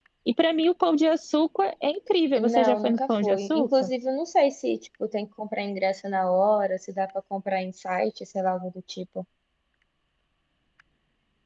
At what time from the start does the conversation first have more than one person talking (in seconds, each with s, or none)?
2.4 s